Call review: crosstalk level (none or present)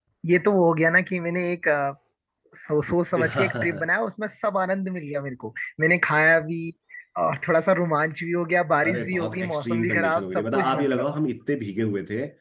present